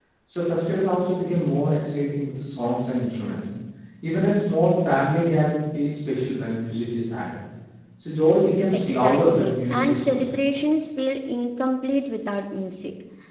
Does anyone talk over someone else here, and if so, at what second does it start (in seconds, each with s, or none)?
8.7 s